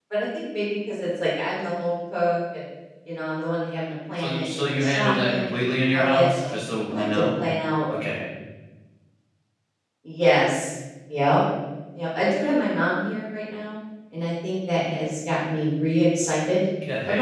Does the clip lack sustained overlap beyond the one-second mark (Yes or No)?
No